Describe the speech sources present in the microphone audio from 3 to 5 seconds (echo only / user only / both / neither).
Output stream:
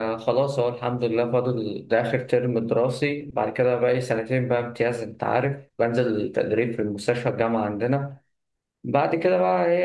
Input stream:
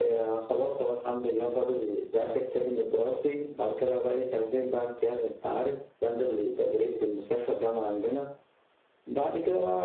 echo only